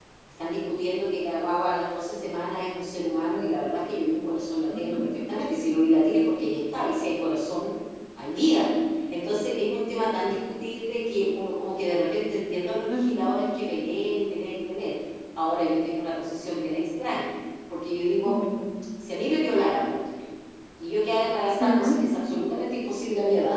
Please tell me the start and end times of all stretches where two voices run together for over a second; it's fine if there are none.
none

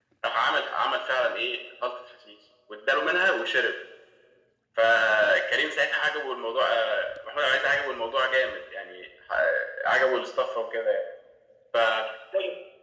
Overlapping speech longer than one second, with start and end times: none

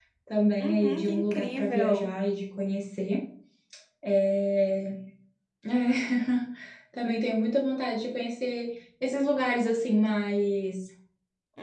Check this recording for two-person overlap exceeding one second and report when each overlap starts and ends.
0.6-2.1

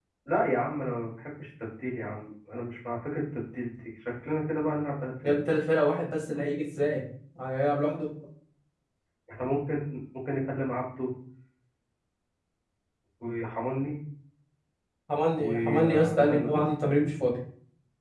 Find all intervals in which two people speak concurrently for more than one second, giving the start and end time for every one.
15.4-16.6

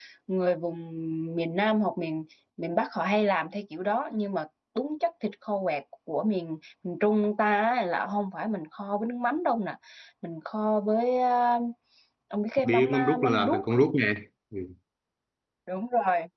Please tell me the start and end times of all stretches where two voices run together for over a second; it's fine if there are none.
12.6-13.8

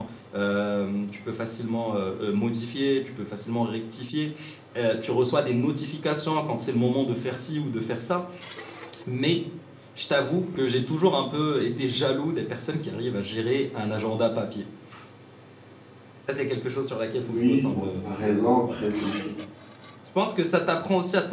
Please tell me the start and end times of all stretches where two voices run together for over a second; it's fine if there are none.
17.2-18.8

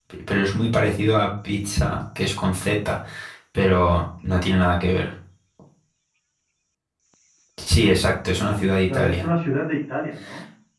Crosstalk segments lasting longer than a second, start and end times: none

